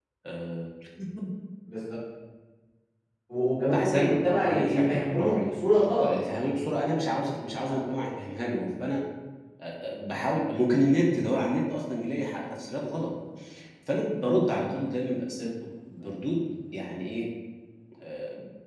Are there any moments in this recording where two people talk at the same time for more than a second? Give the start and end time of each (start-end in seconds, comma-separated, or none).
3.7-5.5